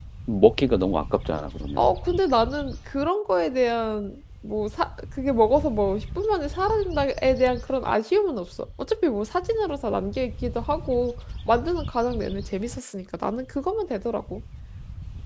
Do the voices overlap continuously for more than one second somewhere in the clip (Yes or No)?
No